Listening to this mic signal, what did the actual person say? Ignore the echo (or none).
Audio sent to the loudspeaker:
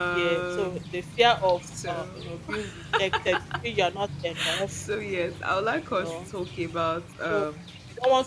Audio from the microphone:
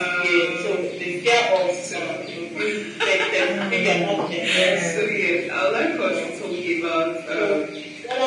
Mm. Yeah.